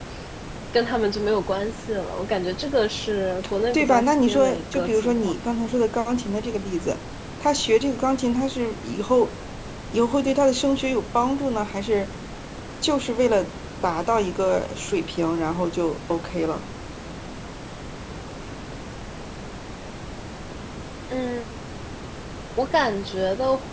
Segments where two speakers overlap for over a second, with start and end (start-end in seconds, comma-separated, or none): 3.7-5.3